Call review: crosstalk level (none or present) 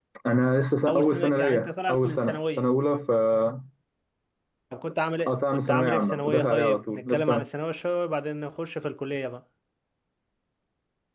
present